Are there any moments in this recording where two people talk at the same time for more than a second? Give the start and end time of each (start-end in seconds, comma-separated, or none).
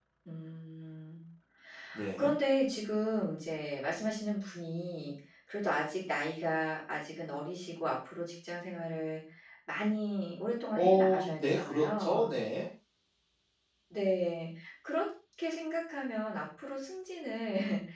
10.7-12.3